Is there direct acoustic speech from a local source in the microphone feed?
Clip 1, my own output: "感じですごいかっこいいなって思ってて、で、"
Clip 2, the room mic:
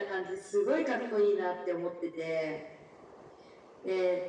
Yes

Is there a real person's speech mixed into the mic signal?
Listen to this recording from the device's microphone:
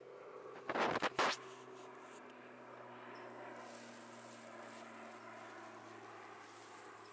No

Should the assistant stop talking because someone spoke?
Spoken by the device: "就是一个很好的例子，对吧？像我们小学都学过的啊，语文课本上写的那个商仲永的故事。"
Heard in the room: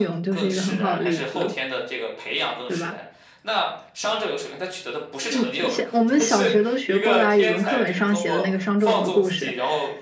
Yes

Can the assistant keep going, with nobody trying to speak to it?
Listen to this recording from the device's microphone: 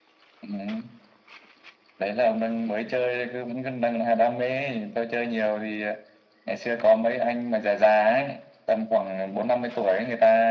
Yes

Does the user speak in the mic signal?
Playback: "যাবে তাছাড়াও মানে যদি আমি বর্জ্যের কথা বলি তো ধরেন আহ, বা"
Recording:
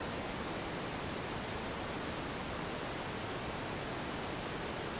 No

